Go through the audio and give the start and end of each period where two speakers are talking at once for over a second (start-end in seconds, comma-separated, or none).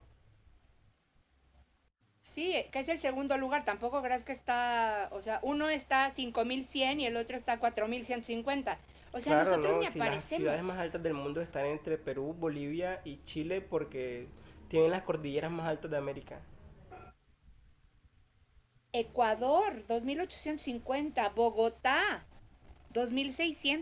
9.2-10.6